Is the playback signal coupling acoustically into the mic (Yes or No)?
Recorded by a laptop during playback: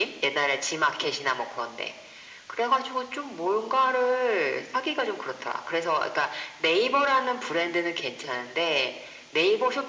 Yes